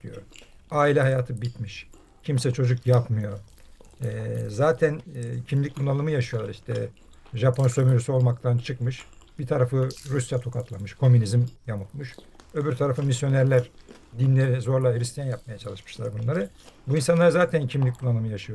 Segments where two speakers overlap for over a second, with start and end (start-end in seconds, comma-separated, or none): none